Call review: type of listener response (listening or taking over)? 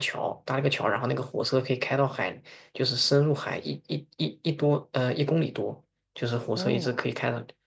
listening